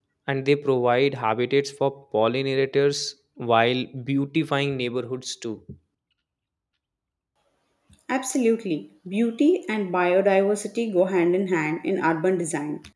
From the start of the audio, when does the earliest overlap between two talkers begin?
none

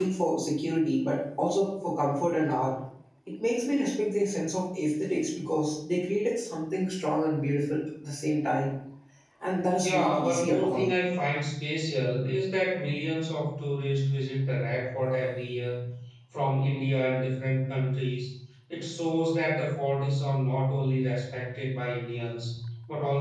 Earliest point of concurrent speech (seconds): 10 s

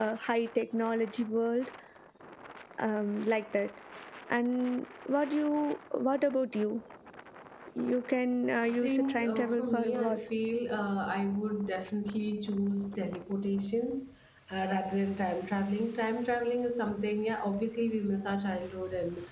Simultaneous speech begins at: 9 s

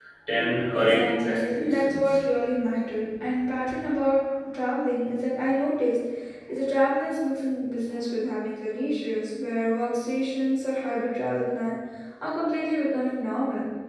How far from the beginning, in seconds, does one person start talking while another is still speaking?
1 s

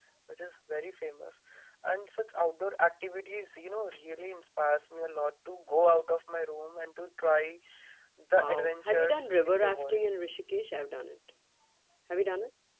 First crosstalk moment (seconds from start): 8 s

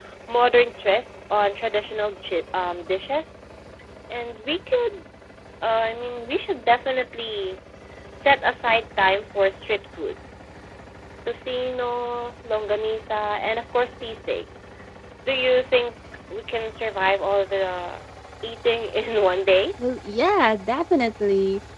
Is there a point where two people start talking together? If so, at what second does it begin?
none

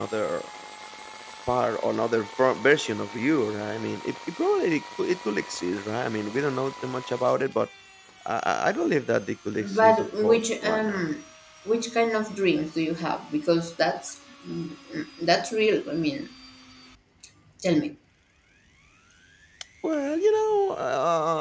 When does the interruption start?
10 s

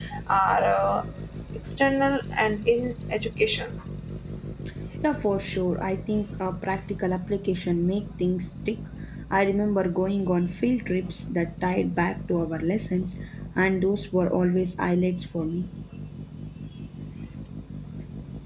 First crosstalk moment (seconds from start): none

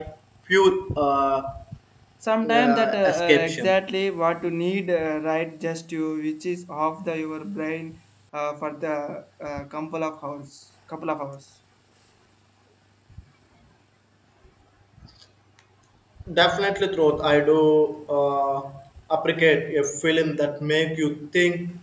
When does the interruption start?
3 s

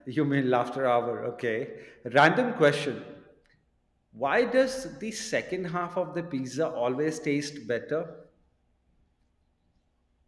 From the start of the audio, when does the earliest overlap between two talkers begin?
none

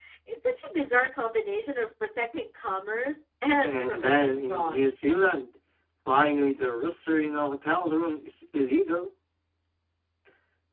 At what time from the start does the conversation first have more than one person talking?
4 s

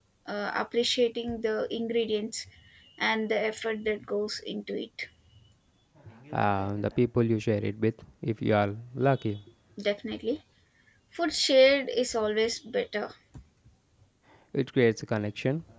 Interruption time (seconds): none

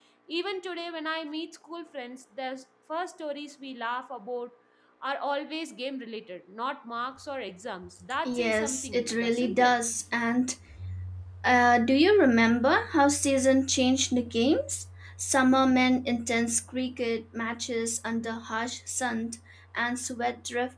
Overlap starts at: 8 s

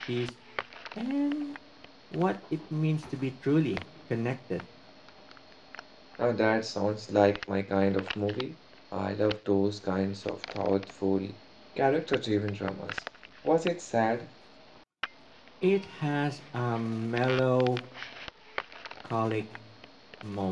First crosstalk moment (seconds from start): none

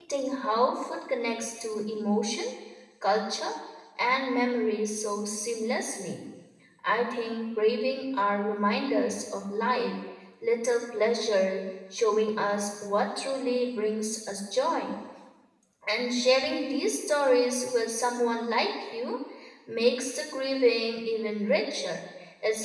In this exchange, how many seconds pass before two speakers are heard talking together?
none

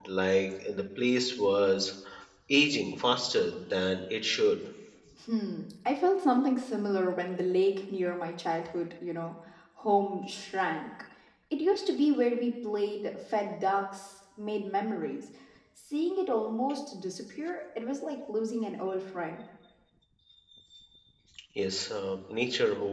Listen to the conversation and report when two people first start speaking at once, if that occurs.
none

